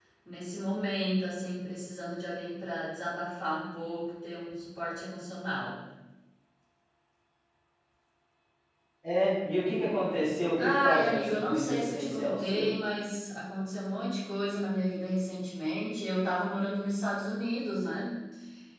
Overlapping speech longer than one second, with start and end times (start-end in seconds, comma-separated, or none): 10.6-12.7